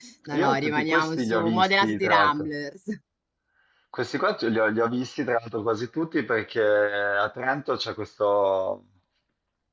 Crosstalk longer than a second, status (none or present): present